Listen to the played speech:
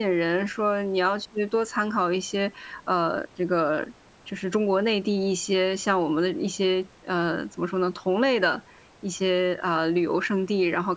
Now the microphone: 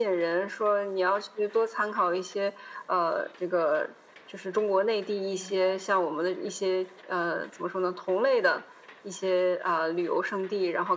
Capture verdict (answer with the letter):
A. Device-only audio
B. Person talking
B